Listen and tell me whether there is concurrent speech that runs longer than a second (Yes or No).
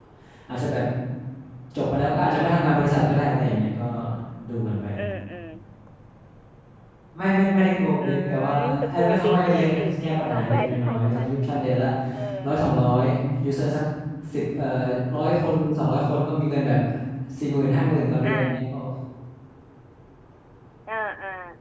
Yes